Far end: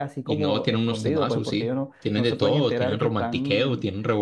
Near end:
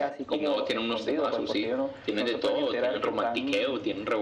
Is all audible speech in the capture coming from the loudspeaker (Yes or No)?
Yes